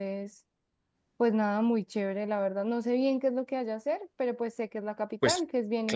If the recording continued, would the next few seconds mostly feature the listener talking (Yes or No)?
Yes